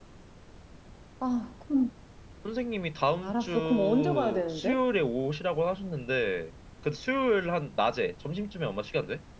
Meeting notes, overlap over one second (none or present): present